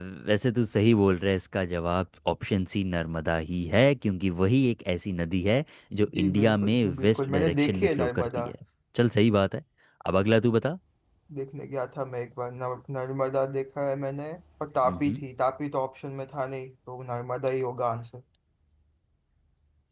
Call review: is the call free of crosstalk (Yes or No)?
No